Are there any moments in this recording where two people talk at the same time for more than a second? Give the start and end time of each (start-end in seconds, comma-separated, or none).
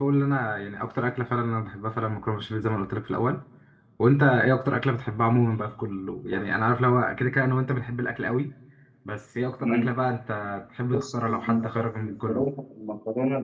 10.9-12.5